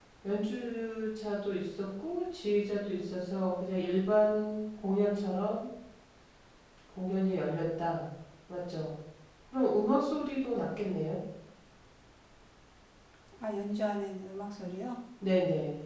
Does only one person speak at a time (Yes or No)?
Yes